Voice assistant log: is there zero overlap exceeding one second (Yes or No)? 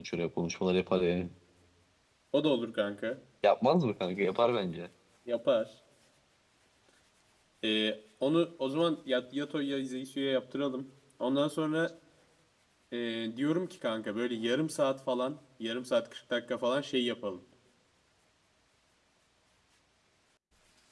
Yes